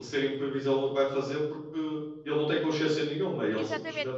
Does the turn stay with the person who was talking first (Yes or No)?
No